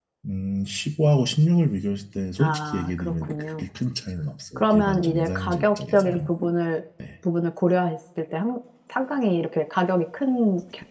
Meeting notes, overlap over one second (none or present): present